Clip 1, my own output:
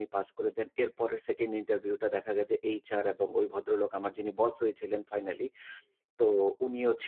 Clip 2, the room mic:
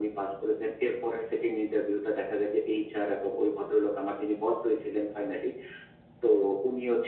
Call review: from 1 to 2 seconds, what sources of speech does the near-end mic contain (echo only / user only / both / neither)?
echo only